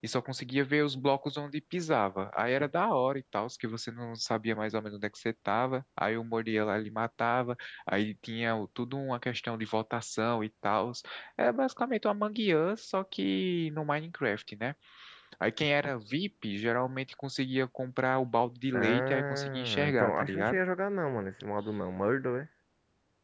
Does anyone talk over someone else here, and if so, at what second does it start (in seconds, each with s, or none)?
18.7 s